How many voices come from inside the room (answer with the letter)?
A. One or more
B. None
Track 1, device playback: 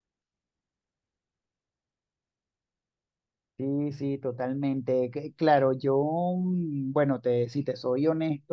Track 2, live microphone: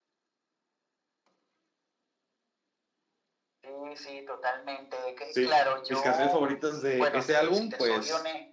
A